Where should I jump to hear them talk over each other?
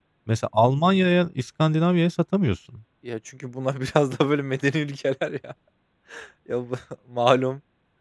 none

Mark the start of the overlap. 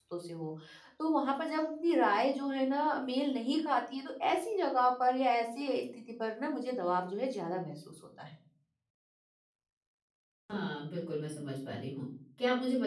none

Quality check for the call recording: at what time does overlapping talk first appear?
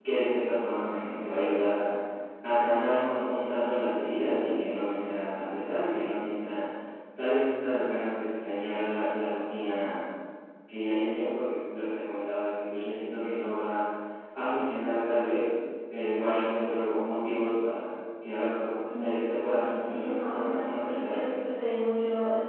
18.8 s

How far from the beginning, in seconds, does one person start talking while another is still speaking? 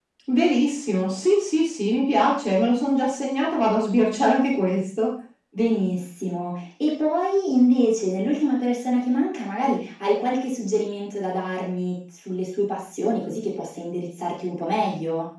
none

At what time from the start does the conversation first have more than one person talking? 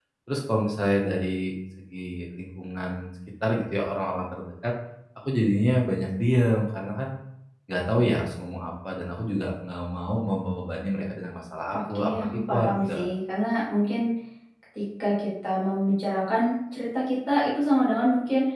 11.7 s

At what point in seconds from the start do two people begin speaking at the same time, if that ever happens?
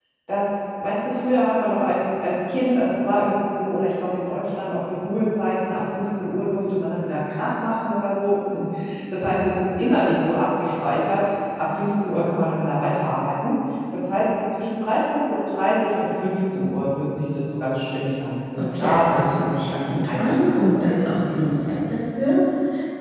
18.6 s

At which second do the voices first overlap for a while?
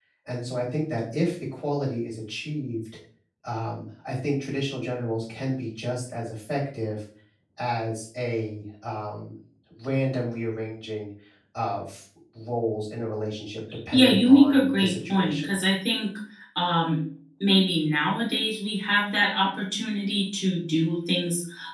13.9 s

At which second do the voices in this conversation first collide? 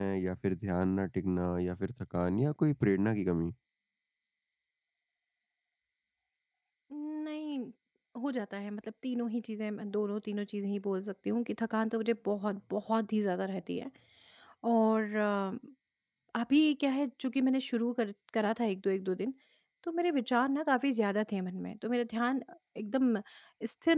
none

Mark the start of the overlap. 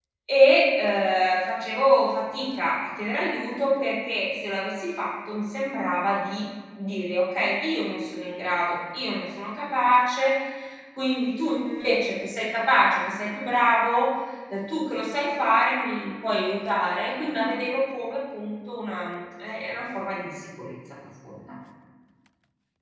none

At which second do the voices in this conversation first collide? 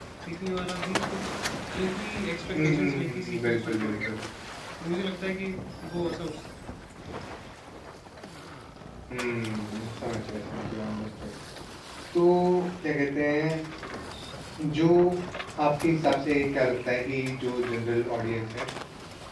2.5 s

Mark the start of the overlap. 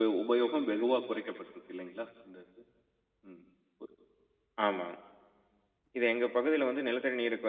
none

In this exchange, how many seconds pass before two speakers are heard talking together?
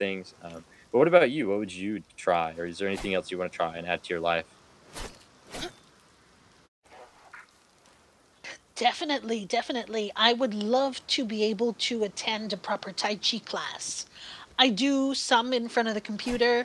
none

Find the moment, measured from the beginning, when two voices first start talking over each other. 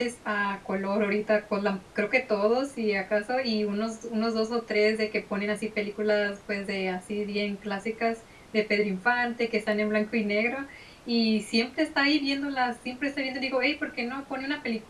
none

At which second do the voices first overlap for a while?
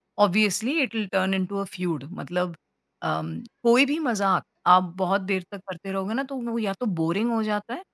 none

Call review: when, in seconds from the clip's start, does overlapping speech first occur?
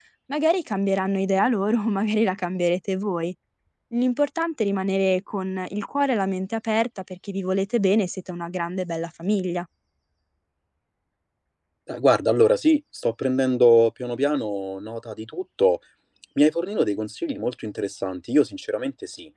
none

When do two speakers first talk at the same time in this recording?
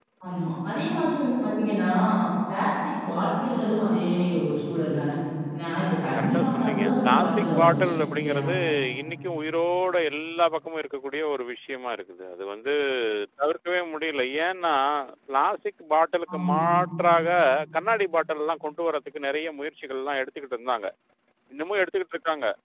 6.2 s

